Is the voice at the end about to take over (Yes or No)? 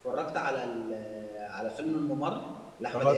Yes